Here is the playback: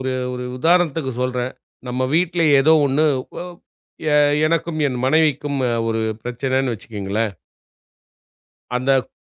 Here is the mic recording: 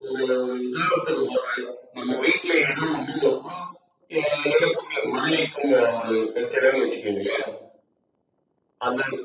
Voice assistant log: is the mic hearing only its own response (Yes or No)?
Yes